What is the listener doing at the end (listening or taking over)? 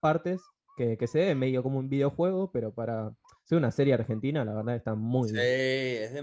taking over